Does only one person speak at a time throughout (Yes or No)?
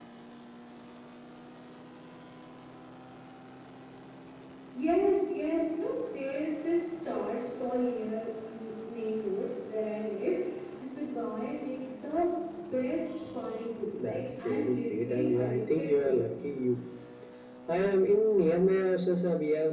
No